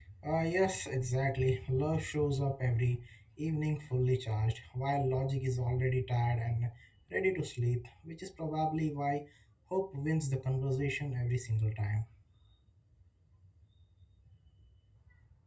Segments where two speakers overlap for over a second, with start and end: none

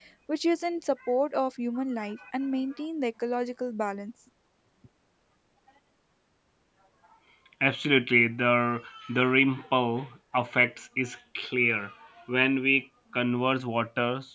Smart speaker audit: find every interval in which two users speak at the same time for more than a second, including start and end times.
none

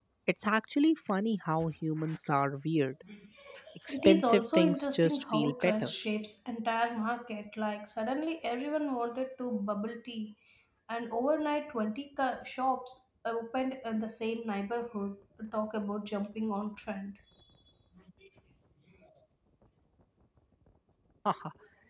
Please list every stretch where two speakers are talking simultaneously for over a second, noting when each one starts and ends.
3.9-5.9

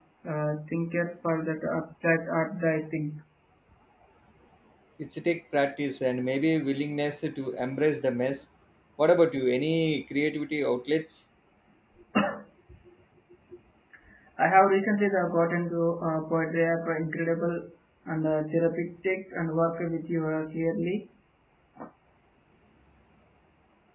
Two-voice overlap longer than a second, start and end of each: none

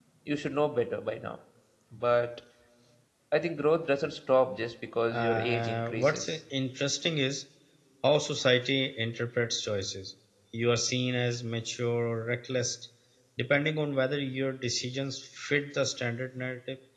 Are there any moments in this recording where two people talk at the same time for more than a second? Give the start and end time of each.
5.1-6.4

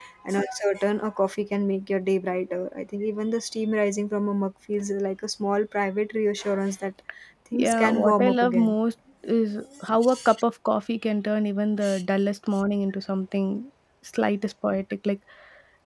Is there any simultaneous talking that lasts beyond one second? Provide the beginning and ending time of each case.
7.5-8.8

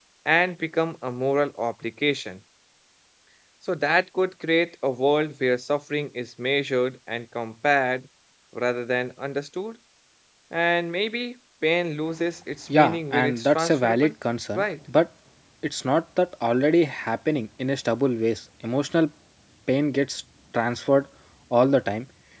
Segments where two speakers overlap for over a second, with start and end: 12.7-14.1

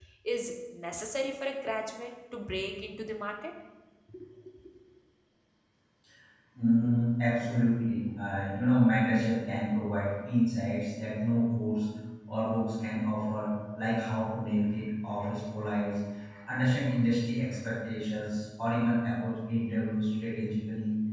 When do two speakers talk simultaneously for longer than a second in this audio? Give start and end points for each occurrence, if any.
none

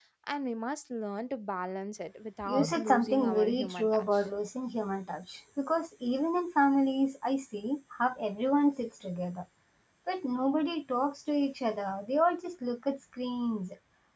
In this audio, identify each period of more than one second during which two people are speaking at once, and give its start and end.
2.5-4.2

